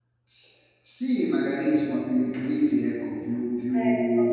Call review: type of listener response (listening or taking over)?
listening